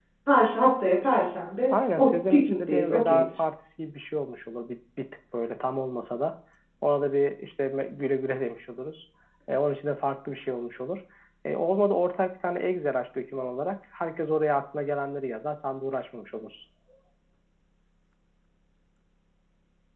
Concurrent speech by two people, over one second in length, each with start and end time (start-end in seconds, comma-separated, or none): 1.7-3.2